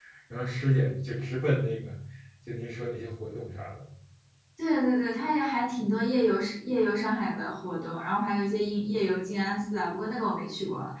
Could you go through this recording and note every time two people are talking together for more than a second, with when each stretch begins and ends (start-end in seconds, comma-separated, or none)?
none